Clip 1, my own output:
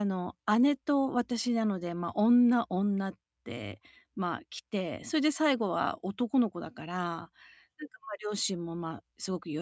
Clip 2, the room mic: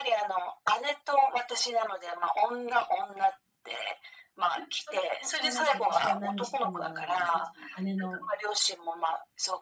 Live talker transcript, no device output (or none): なんかそれで、またなんか私は、何しても何だろう、いつも姉の、